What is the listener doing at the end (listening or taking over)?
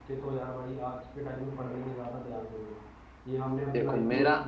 listening